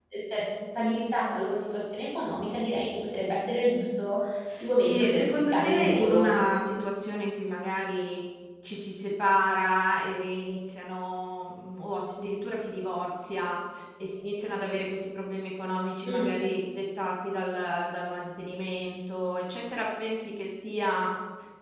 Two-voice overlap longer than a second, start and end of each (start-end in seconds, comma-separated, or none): 4.9-6.3